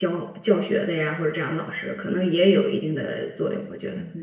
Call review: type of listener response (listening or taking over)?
taking over